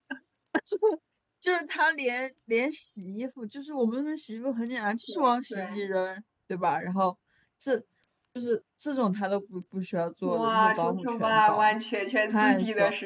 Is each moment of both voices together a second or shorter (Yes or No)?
No